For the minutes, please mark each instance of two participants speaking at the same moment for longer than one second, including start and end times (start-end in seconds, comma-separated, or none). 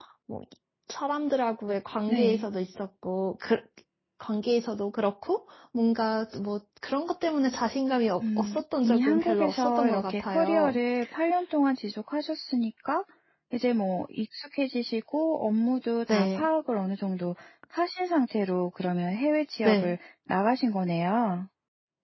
8.2-10.8